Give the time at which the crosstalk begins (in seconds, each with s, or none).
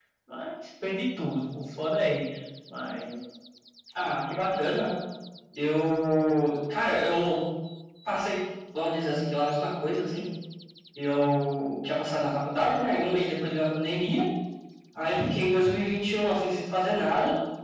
none